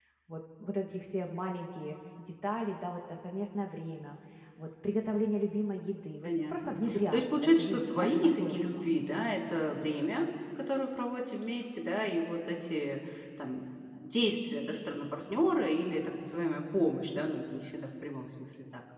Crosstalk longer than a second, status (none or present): present